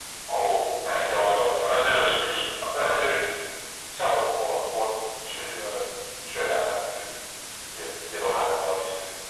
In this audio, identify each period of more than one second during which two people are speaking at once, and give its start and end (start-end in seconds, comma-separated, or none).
1.0-3.1